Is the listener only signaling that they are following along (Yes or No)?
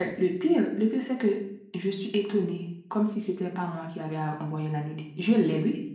No